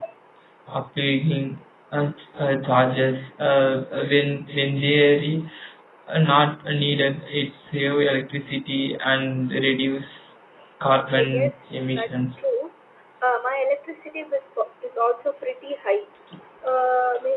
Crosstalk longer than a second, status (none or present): present